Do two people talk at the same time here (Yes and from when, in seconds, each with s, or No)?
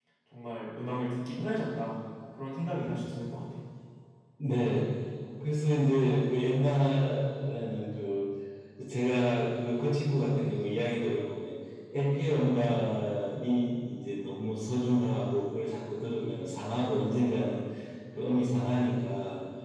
No